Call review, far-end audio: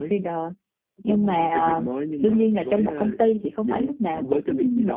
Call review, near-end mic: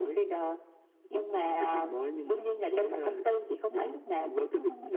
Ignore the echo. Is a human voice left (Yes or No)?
No